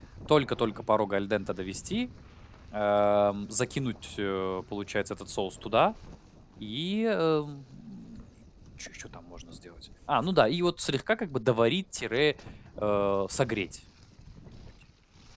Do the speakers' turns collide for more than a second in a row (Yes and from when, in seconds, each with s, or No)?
No